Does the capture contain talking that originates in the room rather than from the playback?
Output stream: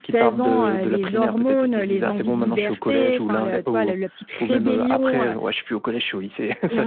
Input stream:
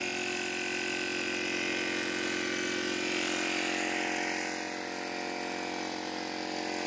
No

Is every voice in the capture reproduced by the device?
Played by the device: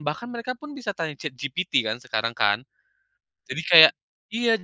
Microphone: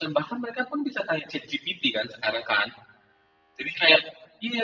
Yes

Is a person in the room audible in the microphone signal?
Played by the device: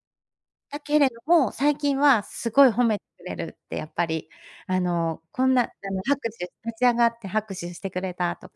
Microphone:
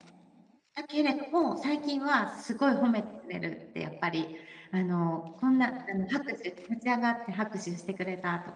No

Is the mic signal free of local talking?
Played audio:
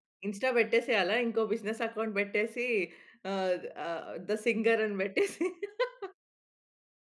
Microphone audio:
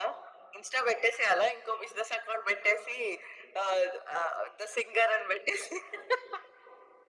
Yes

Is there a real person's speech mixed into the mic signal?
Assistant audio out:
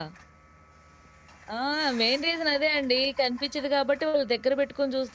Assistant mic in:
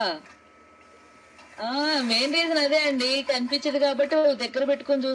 No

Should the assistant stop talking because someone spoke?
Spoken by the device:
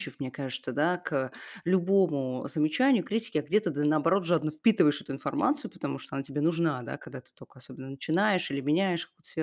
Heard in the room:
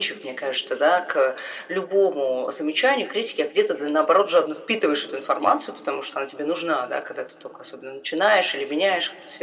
No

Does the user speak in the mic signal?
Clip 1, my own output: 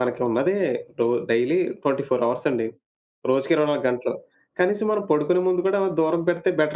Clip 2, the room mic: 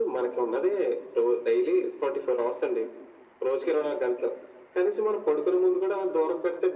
No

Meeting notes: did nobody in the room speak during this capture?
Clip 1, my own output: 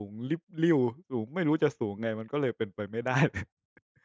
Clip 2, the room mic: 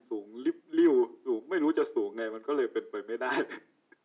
Yes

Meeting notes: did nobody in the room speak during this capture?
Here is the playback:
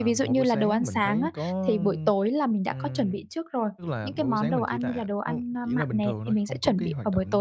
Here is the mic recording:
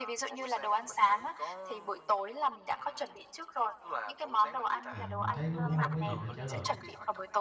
No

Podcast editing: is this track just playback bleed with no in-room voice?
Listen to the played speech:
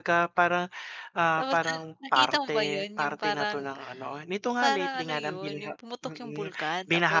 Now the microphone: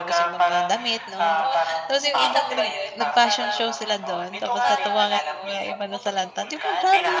No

